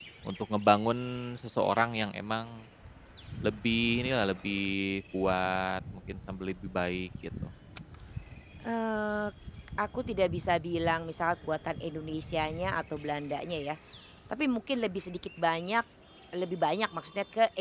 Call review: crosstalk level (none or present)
none